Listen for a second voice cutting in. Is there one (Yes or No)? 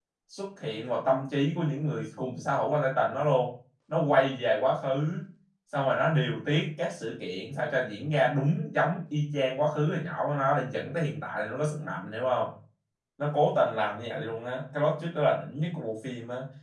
No